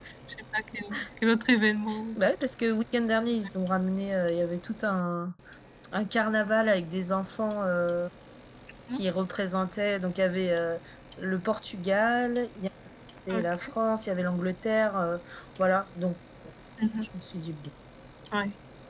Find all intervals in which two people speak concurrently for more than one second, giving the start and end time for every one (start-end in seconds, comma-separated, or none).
none